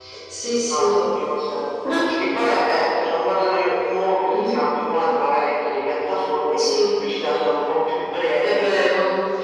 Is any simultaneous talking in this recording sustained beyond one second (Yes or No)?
No